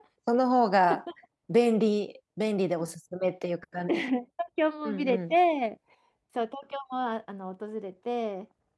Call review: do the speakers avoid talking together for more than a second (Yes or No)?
Yes